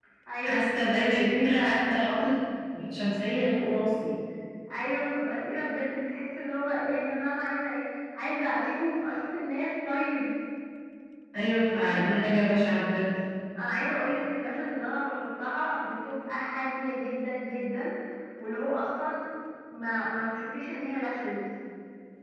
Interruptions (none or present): present